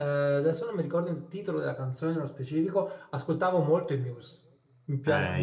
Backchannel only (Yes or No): No